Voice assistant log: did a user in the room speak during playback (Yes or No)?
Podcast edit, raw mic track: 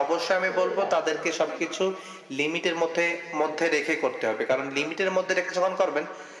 Yes